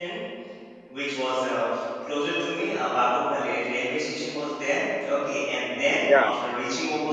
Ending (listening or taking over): listening